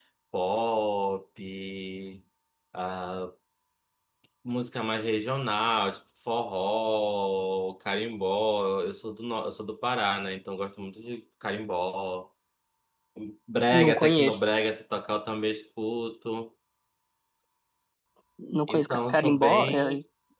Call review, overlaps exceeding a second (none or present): present